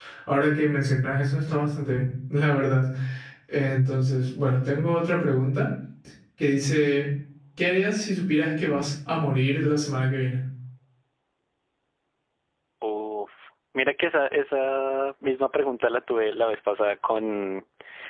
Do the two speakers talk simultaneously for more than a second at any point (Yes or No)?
No